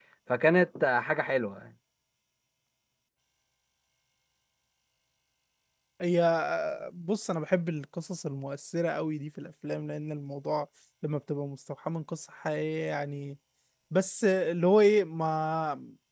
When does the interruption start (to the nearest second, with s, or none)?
none